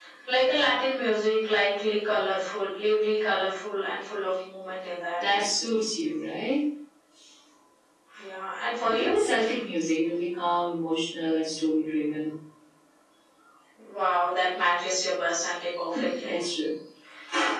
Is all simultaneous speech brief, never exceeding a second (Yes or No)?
Yes